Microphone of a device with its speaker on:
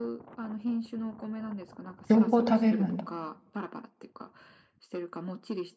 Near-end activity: present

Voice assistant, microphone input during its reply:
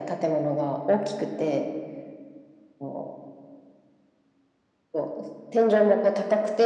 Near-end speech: none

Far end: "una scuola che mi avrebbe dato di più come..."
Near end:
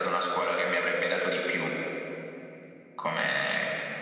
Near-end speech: none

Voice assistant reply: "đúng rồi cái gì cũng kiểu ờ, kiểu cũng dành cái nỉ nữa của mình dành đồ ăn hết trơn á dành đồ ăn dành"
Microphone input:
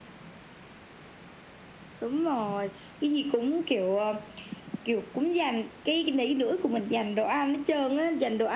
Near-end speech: none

